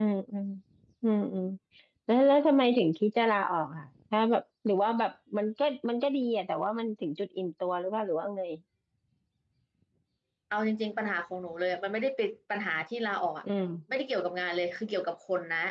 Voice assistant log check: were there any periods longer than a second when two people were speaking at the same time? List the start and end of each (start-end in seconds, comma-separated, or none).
none